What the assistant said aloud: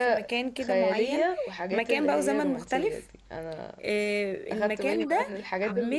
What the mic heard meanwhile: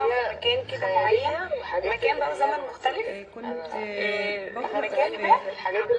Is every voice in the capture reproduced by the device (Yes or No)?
No